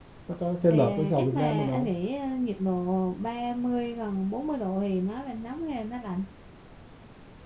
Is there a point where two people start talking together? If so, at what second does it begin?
0.7 s

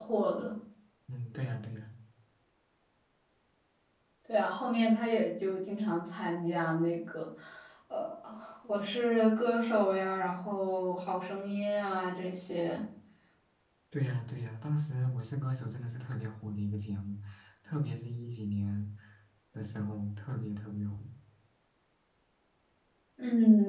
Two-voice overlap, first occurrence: none

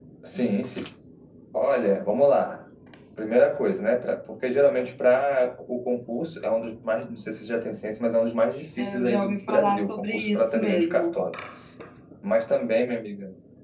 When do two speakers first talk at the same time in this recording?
8.8 s

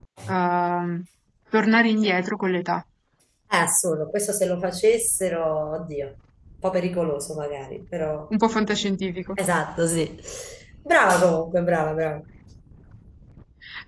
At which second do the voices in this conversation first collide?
none

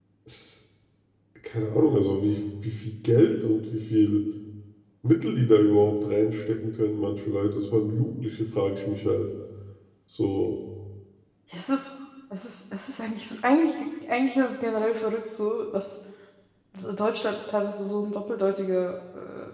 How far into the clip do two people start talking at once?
none

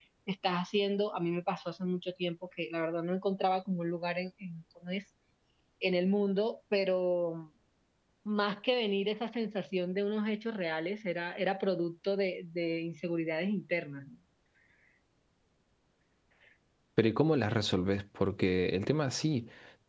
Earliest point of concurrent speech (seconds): none

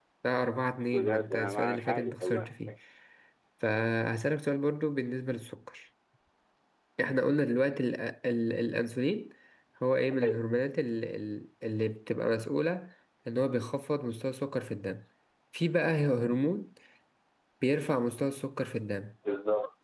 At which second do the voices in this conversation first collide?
0.9 s

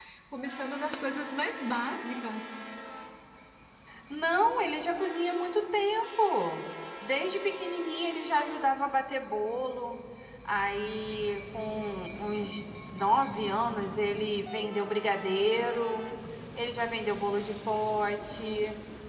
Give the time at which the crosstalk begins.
none

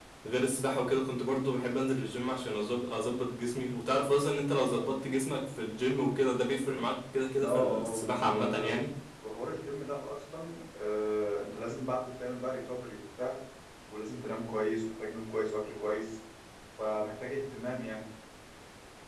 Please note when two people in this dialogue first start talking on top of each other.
7.3 s

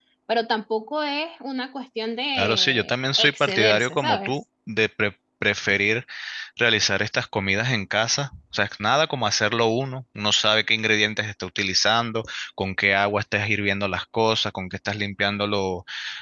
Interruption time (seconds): 2.4 s

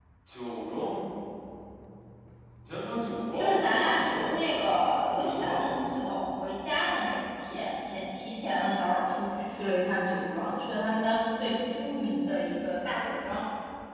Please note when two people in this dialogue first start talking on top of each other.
3.4 s

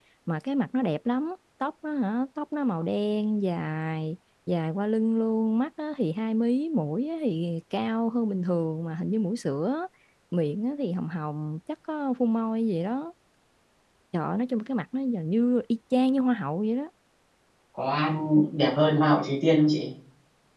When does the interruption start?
none

